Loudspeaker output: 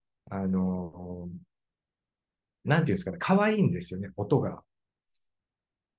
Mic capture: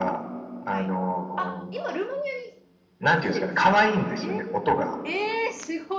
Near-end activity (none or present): present